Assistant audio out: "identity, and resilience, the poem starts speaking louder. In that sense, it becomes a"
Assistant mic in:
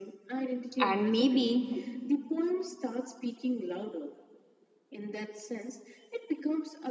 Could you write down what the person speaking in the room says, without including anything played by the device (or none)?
And maybe